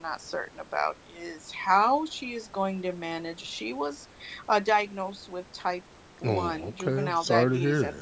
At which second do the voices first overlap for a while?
6.2 s

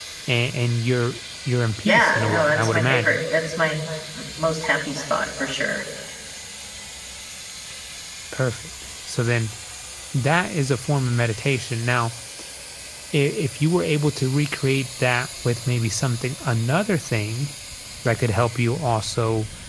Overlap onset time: 1.9 s

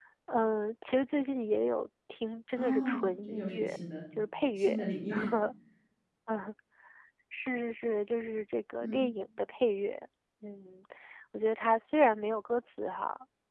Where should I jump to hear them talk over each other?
2.6 s

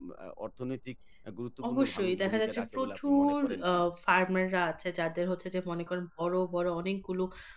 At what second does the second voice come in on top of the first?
1.6 s

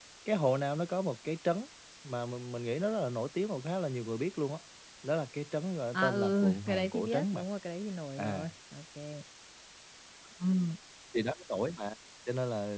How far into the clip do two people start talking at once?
5.9 s

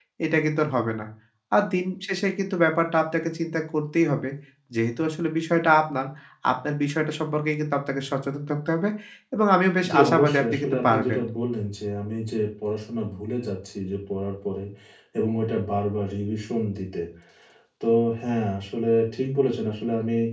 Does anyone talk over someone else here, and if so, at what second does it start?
9.9 s

